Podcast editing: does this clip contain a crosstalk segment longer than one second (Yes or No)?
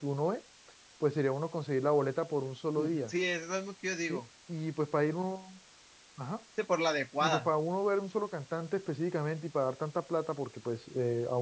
No